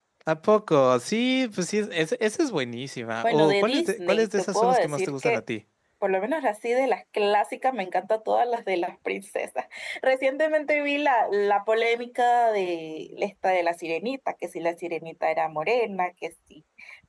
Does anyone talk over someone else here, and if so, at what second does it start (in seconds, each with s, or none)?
3.2 s